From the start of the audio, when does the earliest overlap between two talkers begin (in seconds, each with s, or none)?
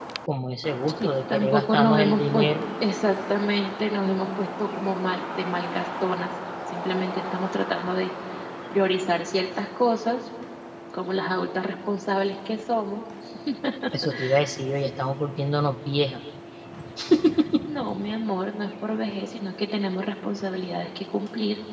1.0 s